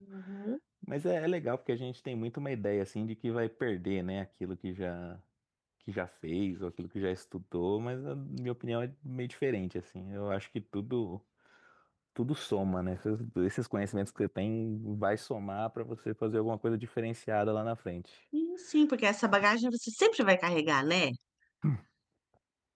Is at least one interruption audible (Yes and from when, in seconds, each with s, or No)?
No